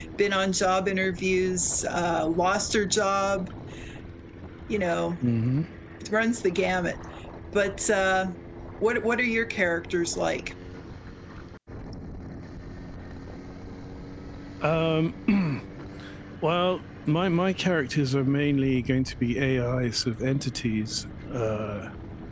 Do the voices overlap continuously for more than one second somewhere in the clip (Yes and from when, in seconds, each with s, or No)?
No